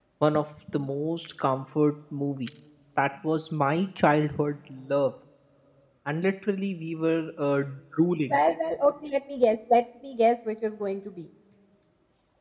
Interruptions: none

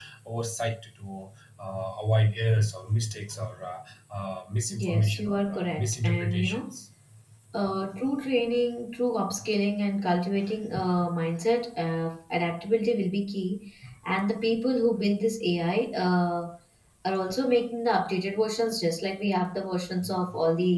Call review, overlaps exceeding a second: present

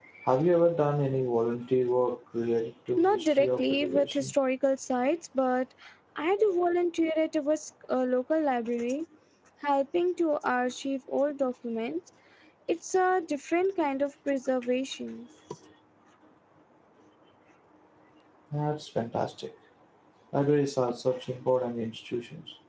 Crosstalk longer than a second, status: present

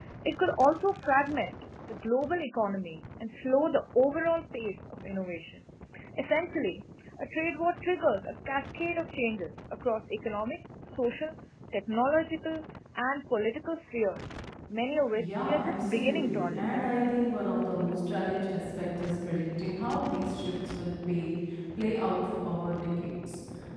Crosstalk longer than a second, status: present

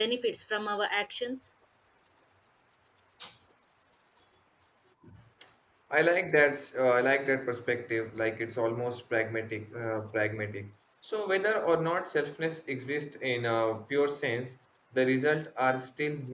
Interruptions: none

